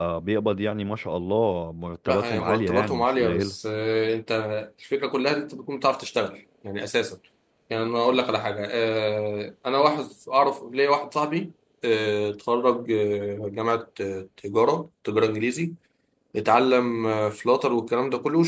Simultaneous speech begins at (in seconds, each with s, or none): 2.1 s